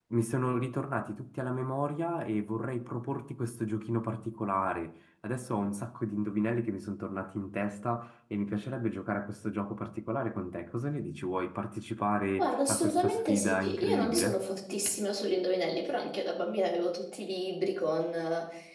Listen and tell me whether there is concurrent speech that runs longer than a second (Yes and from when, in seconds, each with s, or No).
Yes, from 12.4 s